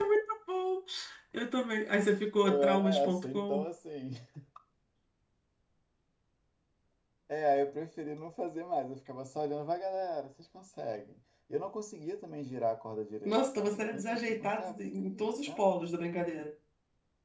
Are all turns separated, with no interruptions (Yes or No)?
No